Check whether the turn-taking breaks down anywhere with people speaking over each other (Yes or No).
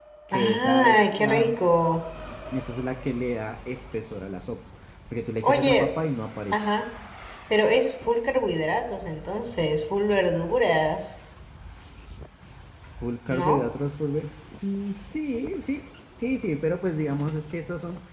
Yes